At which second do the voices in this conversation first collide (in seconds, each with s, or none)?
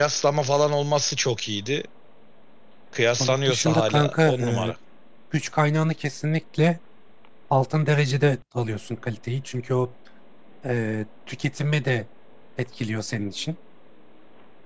3.2 s